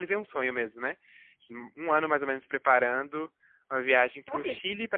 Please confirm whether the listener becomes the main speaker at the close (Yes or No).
No